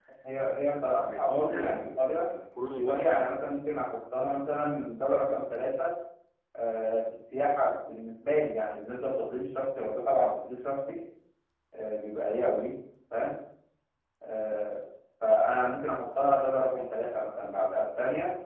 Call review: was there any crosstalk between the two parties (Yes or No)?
Yes